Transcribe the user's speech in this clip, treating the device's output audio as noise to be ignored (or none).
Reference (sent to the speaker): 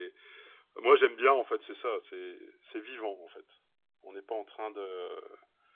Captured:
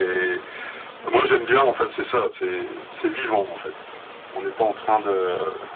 none